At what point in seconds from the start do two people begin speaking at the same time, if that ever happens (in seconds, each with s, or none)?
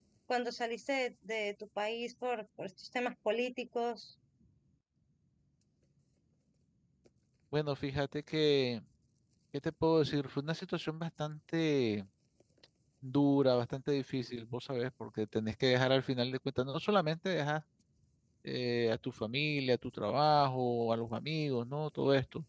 none